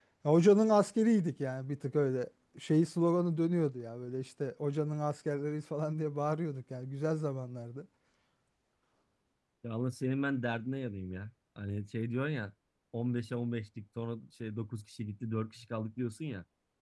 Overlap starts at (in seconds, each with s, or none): none